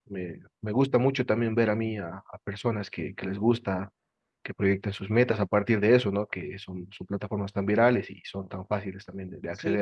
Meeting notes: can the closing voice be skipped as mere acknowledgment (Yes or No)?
No